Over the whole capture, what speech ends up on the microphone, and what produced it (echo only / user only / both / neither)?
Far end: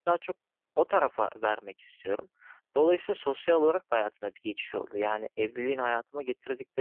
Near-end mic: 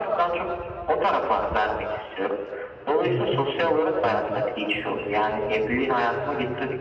both